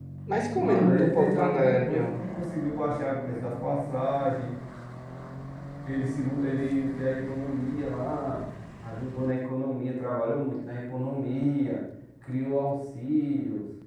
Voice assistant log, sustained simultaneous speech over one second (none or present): present